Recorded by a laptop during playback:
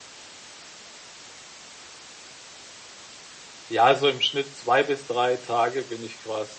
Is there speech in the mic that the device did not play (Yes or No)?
Yes